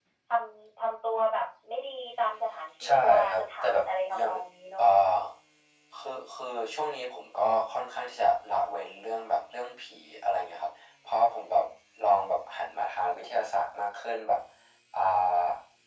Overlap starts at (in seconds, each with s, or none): 2.8 s